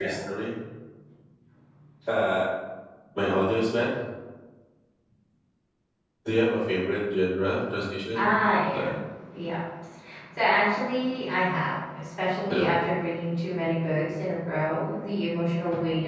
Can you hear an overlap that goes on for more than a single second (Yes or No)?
No